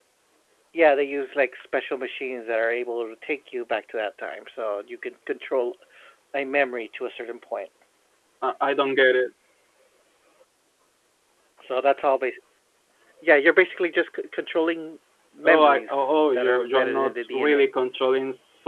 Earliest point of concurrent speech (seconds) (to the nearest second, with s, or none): 15 s